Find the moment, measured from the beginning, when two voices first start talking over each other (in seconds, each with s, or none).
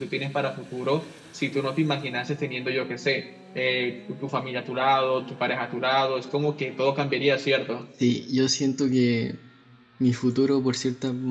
none